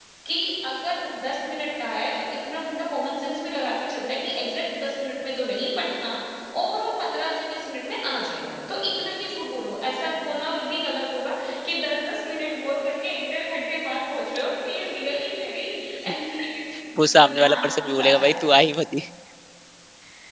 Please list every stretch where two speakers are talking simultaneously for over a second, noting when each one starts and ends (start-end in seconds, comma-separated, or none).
17.0-18.5